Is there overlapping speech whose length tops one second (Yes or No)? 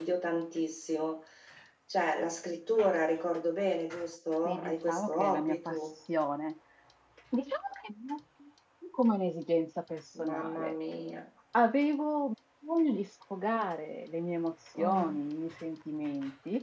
Yes